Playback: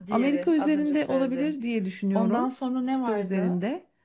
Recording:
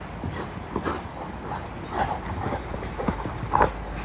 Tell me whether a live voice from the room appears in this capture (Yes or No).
No